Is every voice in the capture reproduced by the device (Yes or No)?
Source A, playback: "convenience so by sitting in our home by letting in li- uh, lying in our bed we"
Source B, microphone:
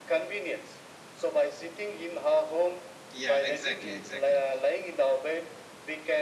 No